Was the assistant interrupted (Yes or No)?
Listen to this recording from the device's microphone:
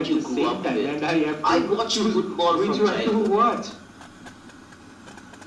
No